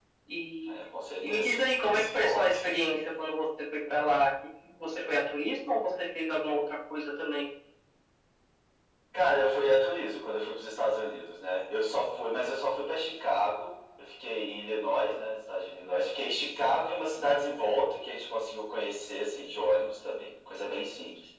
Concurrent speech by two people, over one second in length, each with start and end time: 1.2-2.5

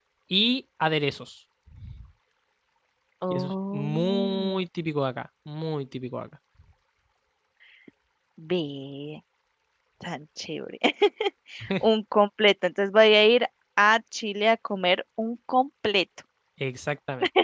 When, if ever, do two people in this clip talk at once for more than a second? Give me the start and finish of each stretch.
3.3-4.6

